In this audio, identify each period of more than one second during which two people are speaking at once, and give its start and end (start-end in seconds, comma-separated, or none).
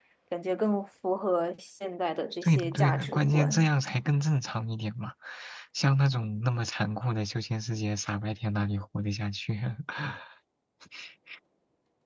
2.4-3.7